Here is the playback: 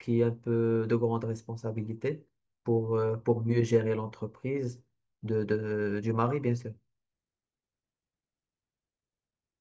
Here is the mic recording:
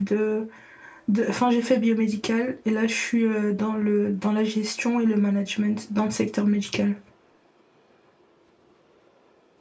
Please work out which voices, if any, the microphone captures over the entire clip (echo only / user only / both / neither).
user only